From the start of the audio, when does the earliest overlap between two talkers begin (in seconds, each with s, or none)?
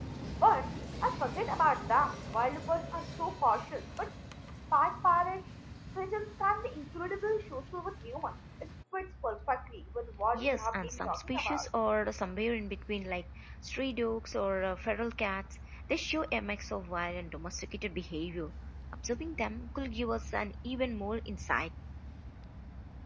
10.3 s